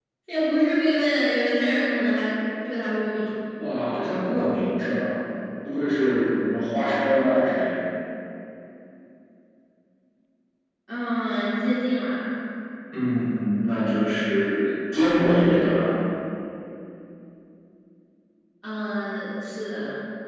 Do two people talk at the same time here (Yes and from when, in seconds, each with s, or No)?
No